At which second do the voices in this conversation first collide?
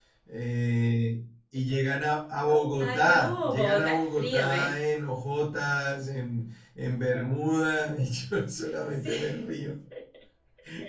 2.8 s

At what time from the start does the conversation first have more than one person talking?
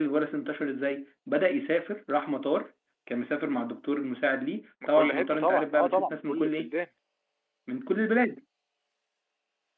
4.9 s

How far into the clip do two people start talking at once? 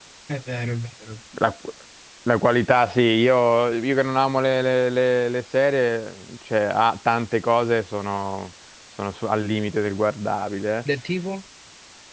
none

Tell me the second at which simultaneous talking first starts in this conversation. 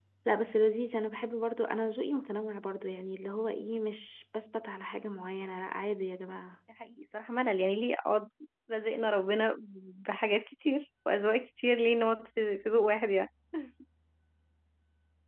none

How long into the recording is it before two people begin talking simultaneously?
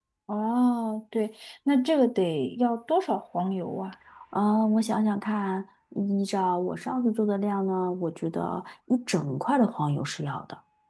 none

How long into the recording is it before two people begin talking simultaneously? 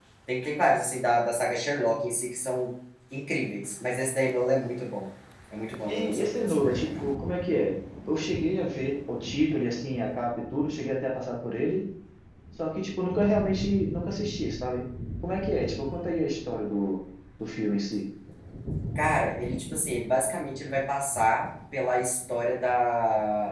5.9 s

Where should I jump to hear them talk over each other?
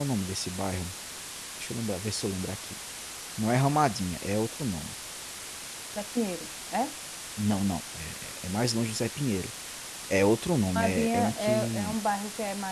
10.8 s

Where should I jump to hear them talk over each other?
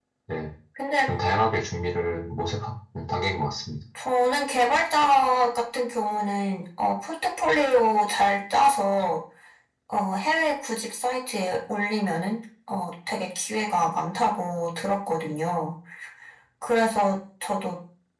none

